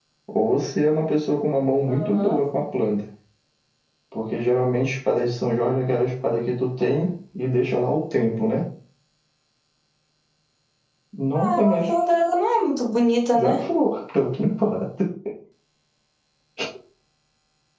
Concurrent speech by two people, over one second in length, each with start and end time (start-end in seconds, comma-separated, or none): none